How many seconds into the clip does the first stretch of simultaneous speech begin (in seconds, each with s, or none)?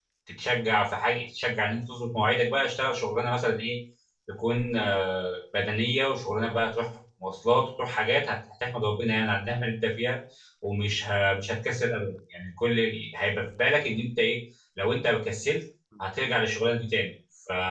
none